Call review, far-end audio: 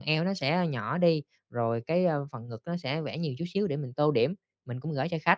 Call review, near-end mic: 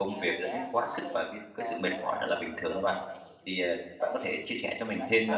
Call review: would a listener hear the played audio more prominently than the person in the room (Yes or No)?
No